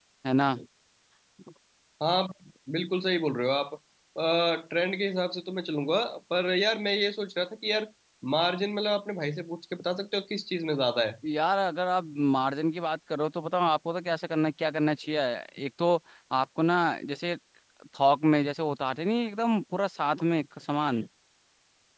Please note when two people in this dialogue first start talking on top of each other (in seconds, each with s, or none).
none